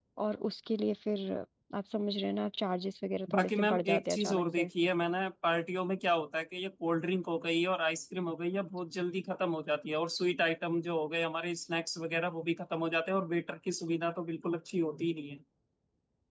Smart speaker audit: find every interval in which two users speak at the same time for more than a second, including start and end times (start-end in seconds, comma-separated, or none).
3.3-4.7